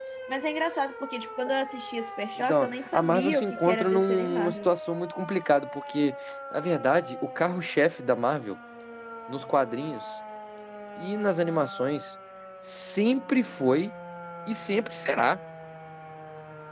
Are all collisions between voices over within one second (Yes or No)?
No